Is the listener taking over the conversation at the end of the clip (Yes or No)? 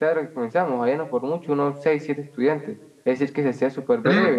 Yes